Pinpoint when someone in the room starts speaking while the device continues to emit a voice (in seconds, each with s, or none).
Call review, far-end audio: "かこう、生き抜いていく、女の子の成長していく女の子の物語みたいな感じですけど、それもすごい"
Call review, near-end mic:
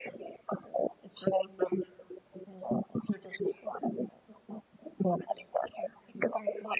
none